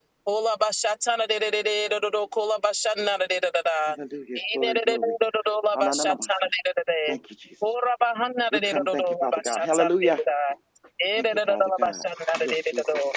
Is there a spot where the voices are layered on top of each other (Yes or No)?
Yes